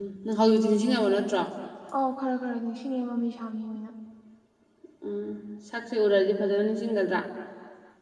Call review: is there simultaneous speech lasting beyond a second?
No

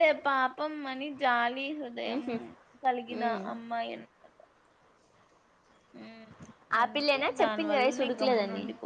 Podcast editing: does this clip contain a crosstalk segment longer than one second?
Yes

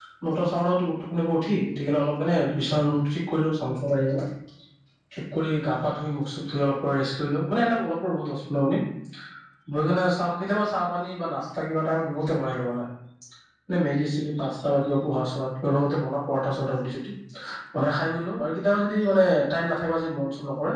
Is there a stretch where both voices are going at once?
No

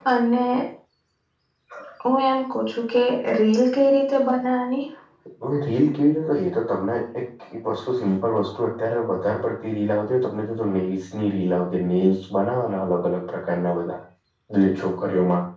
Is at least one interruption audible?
No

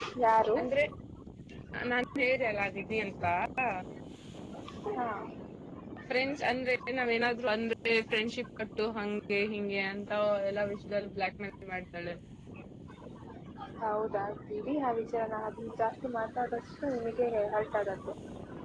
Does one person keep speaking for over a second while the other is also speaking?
No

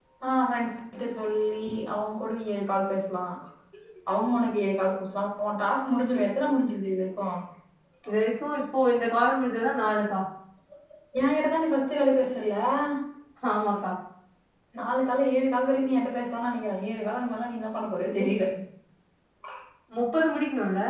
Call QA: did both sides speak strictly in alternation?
Yes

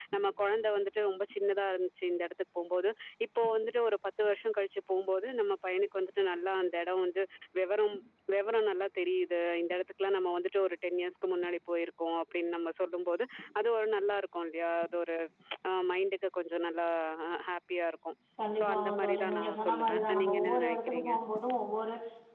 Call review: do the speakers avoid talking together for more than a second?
No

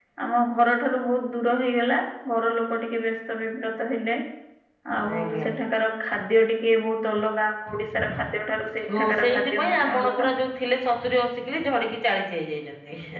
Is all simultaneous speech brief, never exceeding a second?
No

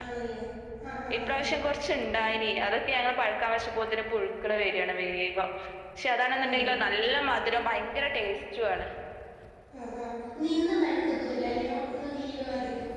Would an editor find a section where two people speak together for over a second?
No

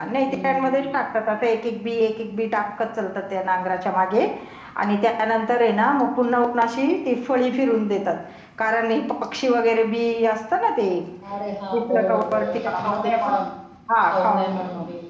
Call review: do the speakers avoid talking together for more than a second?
No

